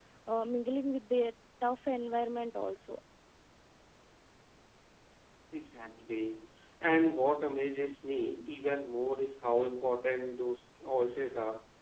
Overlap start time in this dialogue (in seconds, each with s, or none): none